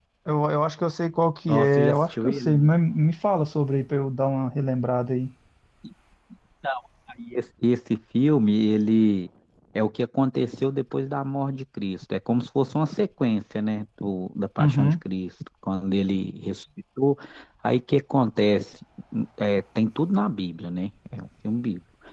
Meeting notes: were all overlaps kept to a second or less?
No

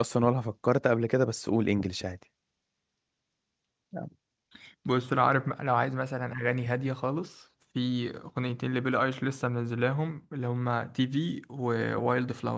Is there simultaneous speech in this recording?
No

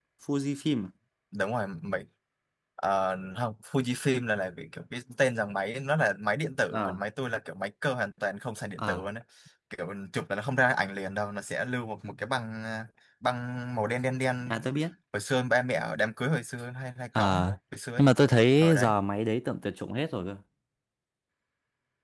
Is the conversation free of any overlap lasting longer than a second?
Yes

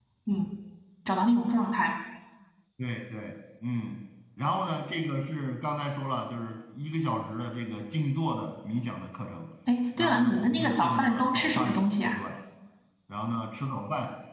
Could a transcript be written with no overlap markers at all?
No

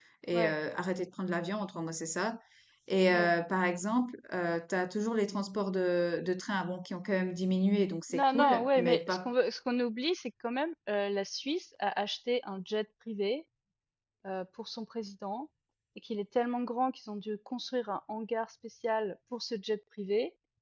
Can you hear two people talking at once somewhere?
Yes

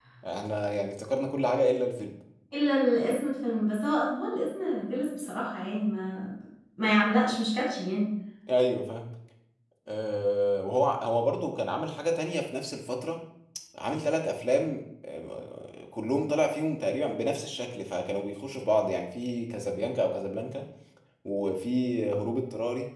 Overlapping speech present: No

